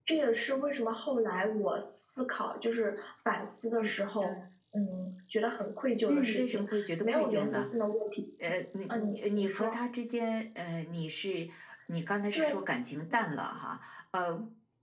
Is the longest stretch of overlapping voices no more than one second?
No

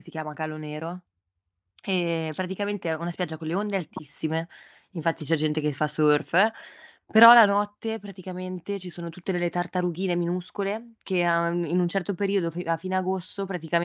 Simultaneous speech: No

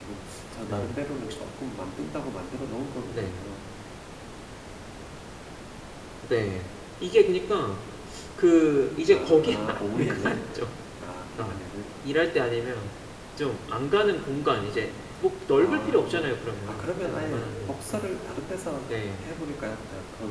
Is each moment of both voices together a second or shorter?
No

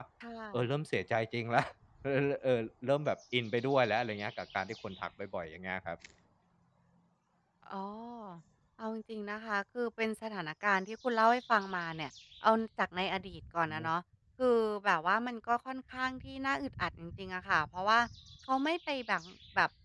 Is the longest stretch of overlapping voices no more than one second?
Yes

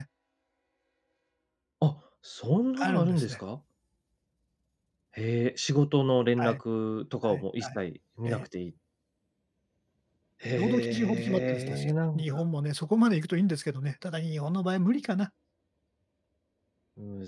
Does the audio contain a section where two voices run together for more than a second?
Yes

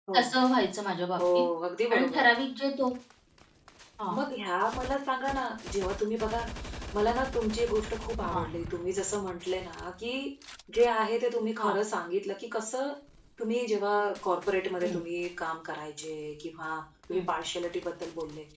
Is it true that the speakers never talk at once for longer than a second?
Yes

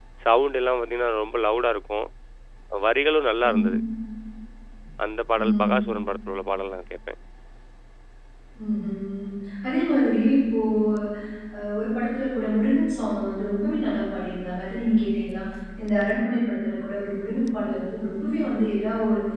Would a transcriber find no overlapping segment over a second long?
Yes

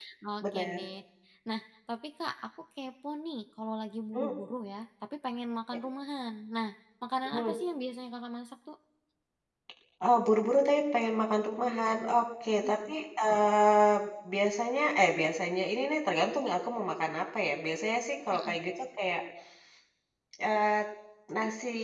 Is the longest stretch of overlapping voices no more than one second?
Yes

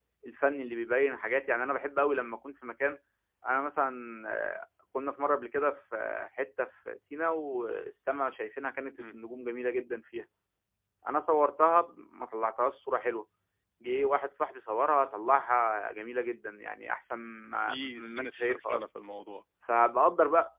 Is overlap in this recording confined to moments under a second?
No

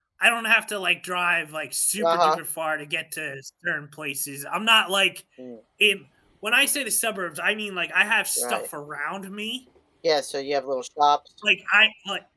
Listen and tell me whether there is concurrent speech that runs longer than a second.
No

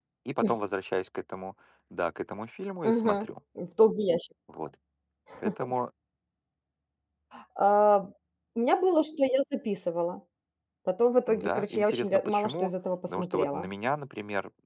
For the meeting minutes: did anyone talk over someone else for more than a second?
Yes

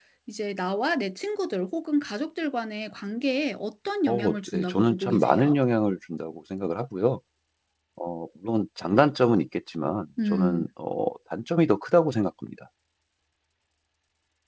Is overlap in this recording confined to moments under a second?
No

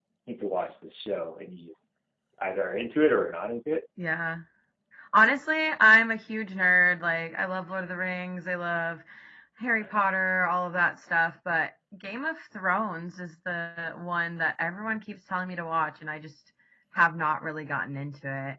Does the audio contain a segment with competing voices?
No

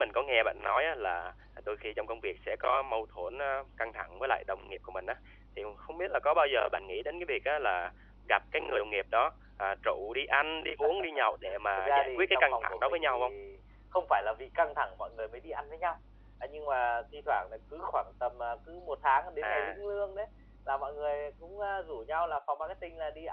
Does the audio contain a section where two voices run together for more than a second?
Yes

